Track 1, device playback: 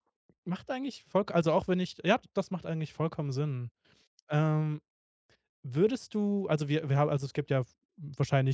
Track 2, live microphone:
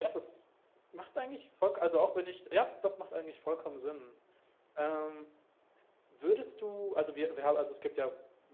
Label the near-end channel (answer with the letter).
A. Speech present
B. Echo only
B